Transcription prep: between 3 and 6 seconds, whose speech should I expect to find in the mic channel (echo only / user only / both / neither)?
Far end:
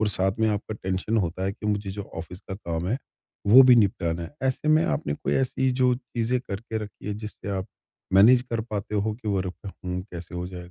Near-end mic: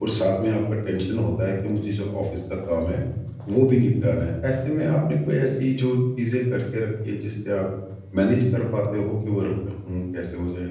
echo only